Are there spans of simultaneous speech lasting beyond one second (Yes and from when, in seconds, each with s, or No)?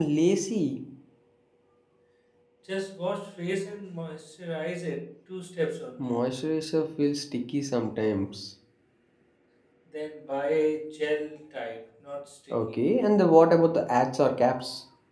No